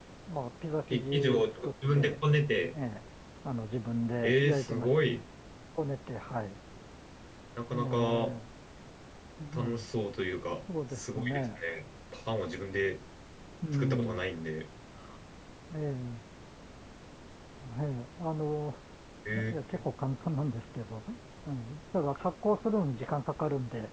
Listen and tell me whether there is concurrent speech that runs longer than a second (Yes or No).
Yes